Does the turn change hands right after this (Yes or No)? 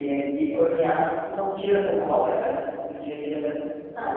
Yes